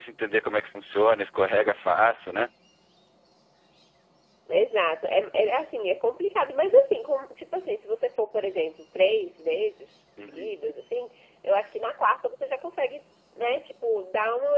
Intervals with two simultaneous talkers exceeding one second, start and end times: none

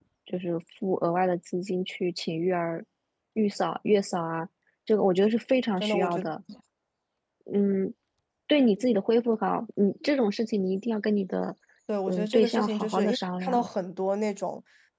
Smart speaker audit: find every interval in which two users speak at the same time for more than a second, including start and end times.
12.1-13.7

